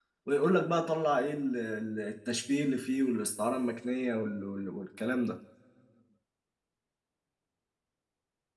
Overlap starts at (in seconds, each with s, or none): none